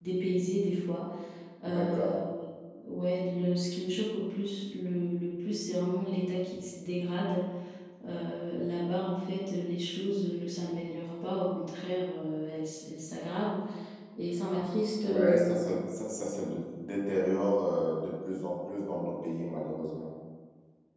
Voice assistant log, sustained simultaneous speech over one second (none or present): none